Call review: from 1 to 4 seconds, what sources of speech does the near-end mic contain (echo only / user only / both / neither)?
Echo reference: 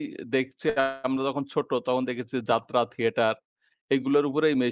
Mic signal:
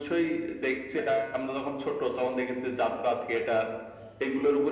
echo only